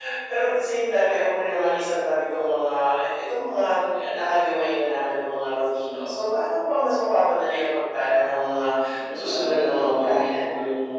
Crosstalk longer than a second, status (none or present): present